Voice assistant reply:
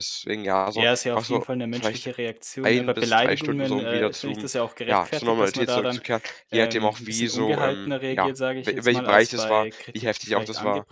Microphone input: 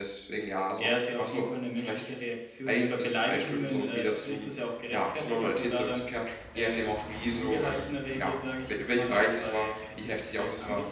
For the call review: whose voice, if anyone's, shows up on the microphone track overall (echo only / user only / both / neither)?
echo only